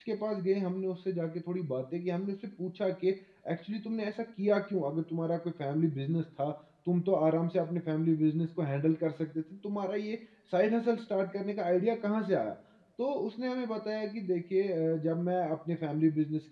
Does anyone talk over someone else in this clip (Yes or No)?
No